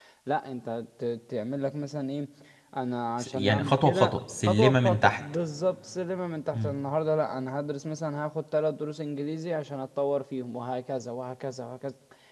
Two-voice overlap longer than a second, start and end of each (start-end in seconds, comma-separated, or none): 3.2-5.2